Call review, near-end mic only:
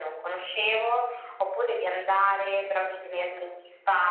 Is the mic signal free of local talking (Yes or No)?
Yes